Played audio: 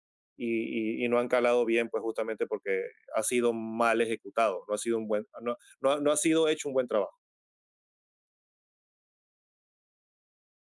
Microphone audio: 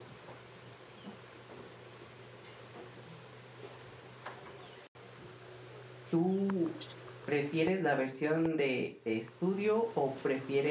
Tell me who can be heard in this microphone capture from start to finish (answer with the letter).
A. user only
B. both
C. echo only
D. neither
A